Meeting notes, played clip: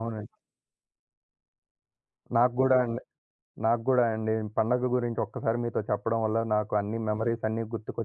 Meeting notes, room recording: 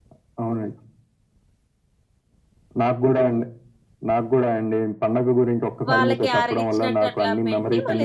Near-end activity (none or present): present